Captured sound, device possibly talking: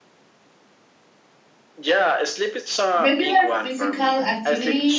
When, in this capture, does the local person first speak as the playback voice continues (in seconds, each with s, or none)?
2.9 s